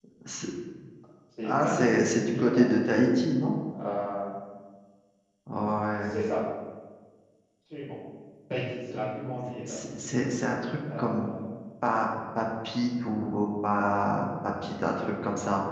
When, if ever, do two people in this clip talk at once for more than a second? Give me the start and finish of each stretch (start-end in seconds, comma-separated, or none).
1.4-2.7